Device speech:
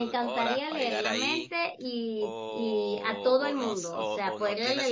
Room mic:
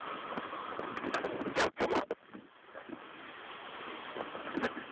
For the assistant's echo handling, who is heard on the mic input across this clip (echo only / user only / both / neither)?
neither